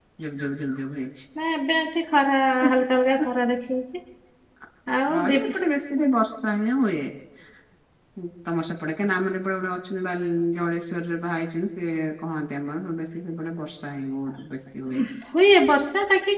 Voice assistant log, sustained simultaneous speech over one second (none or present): none